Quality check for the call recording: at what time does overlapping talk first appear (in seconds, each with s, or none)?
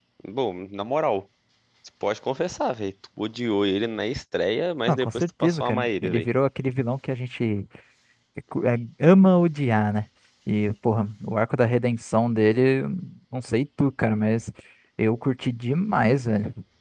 4.9 s